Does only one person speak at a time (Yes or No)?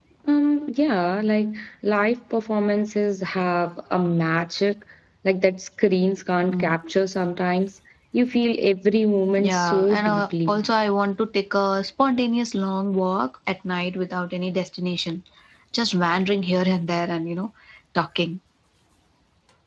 No